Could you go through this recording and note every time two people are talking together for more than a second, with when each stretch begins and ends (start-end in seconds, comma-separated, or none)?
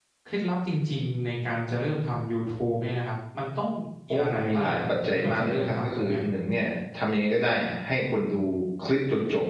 4.1-6.2